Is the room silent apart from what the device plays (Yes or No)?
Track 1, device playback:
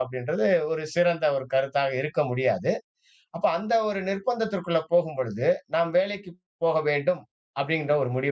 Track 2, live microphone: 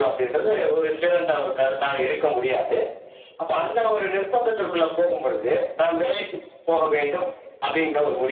Yes